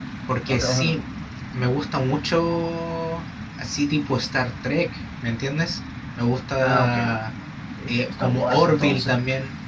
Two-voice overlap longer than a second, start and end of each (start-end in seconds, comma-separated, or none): 7.9-9.2